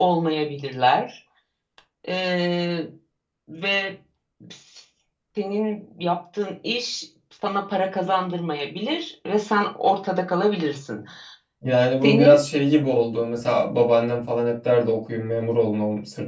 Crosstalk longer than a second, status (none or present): none